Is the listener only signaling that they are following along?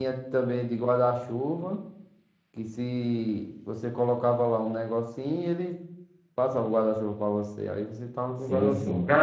No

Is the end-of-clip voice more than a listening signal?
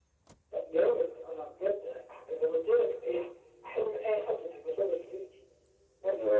No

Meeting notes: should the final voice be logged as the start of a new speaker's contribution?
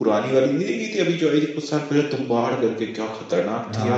Yes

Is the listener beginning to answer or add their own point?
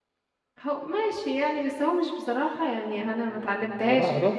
Yes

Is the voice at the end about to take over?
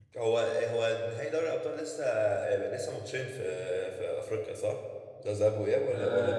Yes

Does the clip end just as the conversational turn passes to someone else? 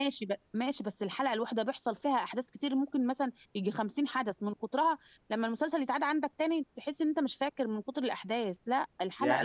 Yes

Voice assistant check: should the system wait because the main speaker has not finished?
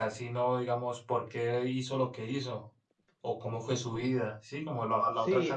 No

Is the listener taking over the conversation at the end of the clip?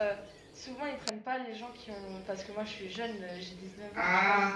No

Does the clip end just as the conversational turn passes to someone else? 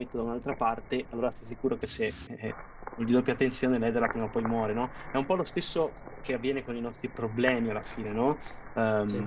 No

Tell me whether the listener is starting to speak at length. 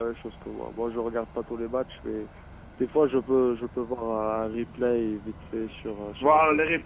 Yes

